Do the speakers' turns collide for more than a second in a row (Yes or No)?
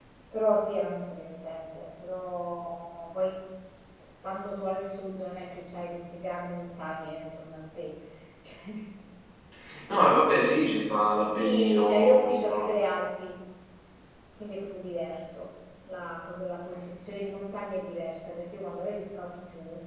Yes